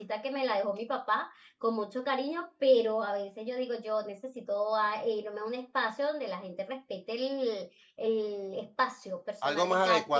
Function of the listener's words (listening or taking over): taking over